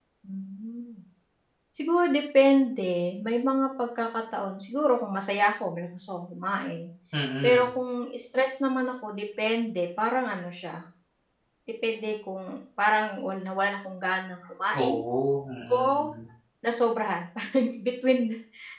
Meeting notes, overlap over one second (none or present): none